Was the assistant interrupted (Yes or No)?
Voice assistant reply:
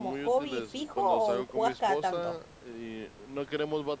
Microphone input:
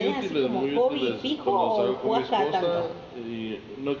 No